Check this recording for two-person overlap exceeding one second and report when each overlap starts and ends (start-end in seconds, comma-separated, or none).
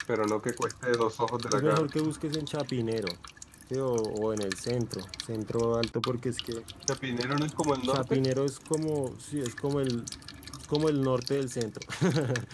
none